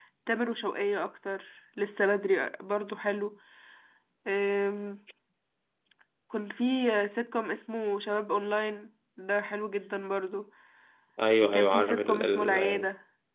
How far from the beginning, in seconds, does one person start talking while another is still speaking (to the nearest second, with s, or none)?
11 s